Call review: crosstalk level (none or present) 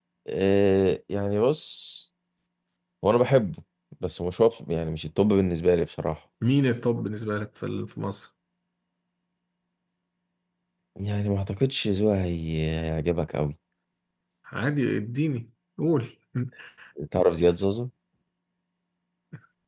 none